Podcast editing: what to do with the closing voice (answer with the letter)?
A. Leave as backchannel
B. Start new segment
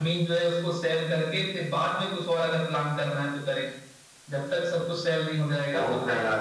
B